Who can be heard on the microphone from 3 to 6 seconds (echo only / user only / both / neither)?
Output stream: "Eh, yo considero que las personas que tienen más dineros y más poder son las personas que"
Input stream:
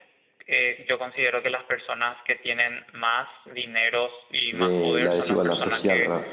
both